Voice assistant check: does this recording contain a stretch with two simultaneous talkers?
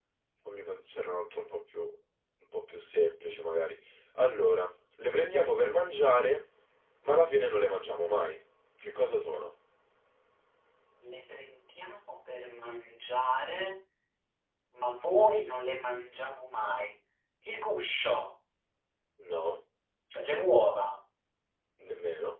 No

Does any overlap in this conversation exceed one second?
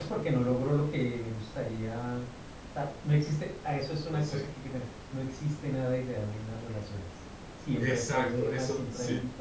Yes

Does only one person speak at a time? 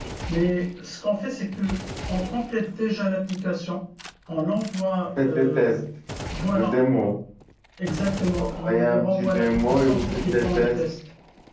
No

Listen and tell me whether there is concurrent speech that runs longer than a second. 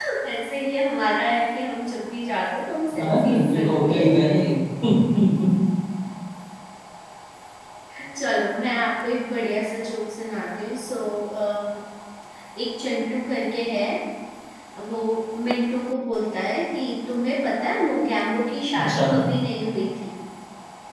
Yes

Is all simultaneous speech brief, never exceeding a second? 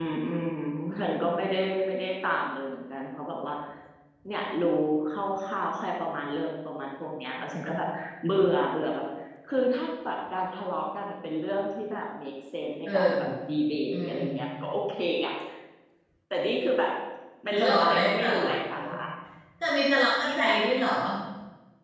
No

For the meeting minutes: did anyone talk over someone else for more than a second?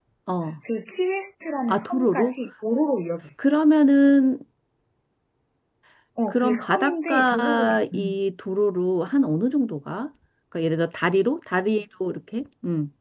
Yes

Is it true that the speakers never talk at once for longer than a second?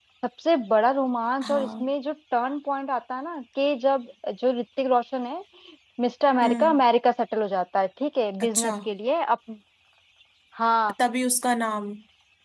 Yes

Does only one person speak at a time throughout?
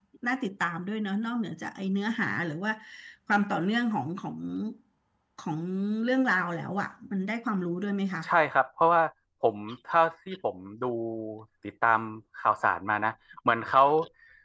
Yes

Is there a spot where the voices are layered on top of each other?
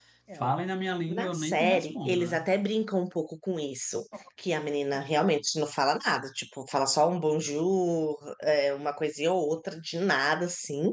Yes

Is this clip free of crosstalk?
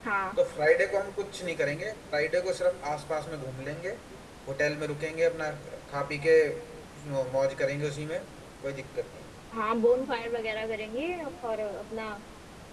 Yes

